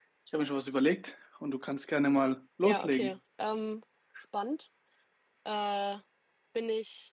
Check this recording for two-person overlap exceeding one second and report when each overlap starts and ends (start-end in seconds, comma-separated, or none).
none